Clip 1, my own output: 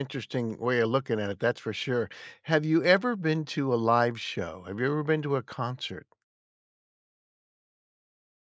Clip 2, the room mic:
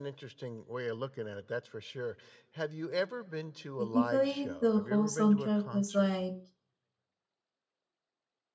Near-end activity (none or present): present